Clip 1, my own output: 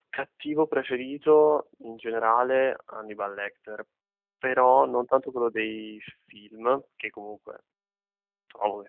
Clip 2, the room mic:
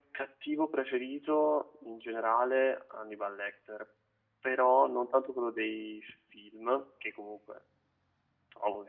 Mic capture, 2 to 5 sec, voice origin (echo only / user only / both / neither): echo only